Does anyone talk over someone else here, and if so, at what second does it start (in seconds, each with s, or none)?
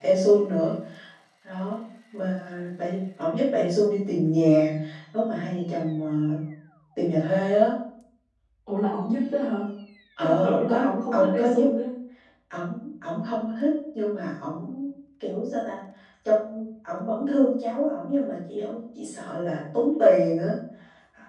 10.2 s